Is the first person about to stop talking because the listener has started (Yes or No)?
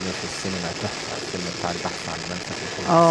Yes